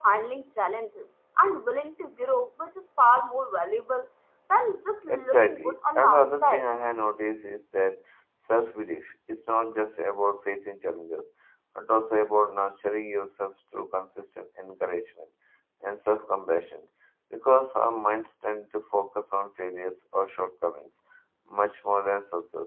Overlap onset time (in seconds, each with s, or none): 5.1 s